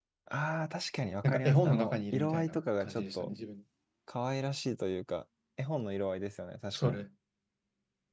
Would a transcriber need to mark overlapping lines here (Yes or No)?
Yes